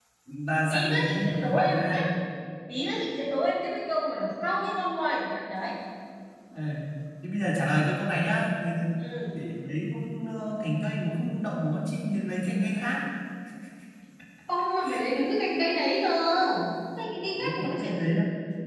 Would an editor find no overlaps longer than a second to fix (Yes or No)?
No